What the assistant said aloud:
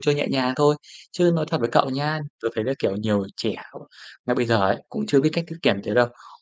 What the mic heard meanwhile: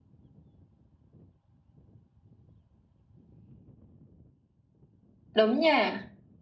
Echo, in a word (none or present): none